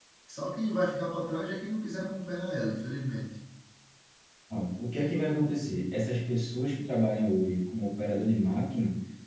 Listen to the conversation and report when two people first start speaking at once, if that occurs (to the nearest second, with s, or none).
none